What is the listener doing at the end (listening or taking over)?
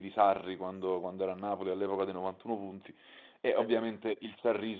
listening